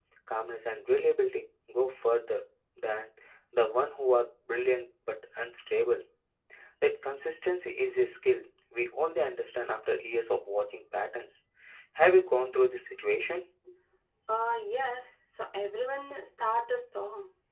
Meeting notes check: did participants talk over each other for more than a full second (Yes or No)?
No